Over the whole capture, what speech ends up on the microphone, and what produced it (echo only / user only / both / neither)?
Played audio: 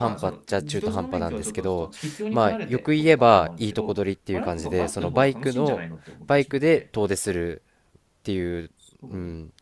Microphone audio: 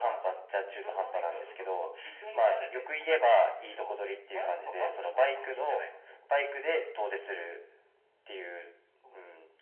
echo only